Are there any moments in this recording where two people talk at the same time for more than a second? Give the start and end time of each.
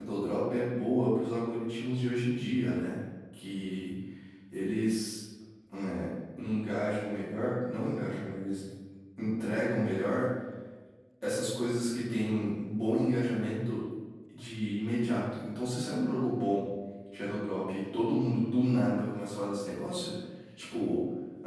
none

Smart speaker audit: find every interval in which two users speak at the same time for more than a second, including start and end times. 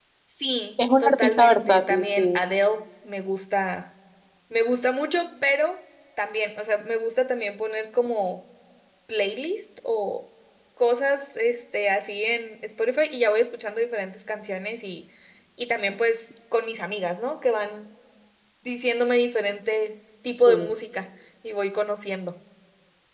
1.0-2.4

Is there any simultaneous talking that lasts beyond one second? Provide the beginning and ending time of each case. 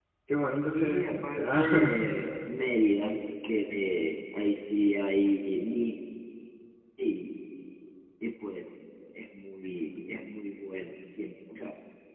0.7-2.0

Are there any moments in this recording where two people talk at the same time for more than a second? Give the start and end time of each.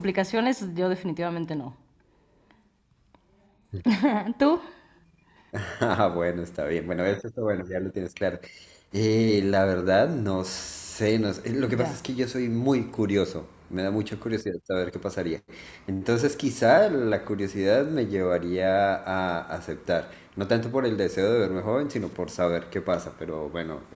none

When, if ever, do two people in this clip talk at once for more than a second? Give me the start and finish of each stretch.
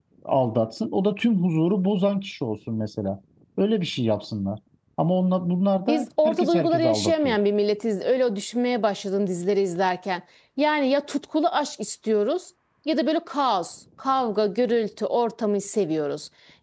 5.9-7.4

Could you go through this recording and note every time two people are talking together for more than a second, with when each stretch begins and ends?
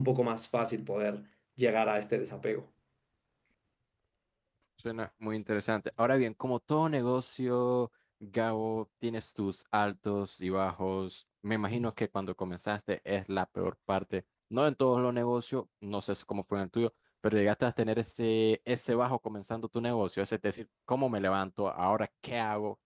none

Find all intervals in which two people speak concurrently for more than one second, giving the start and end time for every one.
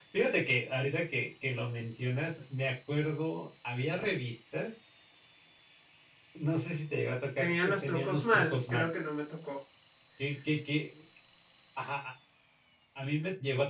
7.4-8.9

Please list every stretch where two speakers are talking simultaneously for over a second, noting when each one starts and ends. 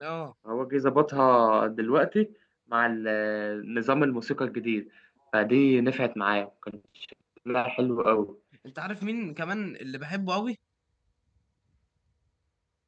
none

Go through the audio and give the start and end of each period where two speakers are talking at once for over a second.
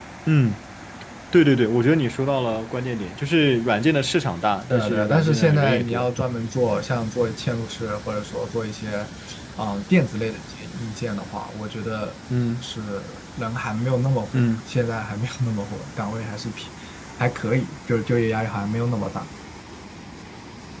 4.7-6.1

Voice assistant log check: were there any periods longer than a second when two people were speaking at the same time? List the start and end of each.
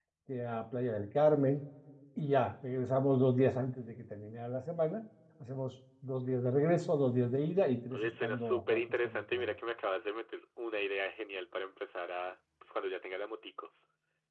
7.9-9.5

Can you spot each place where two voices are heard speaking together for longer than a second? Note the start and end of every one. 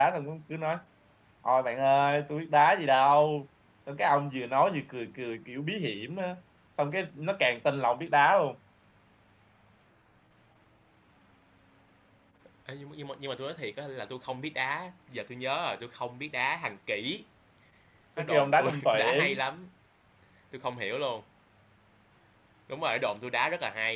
18.2-19.4

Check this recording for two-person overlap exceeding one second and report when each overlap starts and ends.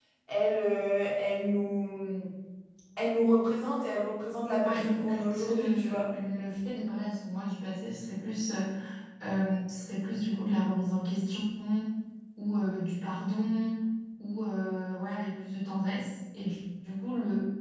4.6-6.0

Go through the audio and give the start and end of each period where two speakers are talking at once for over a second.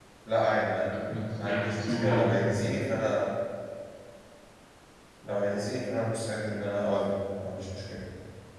1.4-2.7

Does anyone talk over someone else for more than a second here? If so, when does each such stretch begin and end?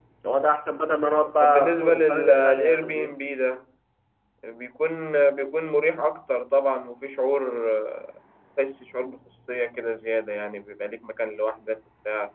1.4-3.2

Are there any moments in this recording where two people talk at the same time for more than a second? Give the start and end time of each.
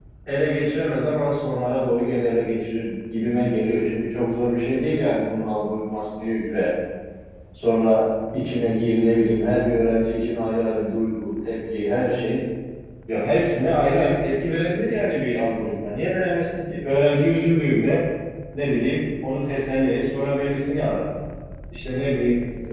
none

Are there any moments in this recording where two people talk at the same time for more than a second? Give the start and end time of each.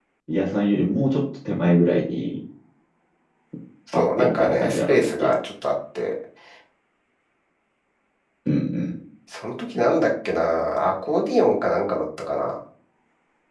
3.9-5.3

